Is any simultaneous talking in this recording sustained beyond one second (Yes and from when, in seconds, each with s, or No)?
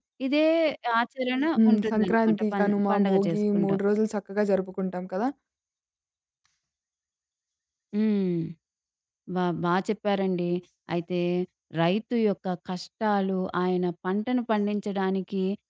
Yes, from 1.6 s